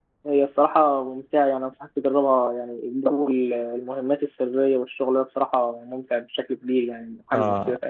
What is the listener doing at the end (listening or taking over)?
taking over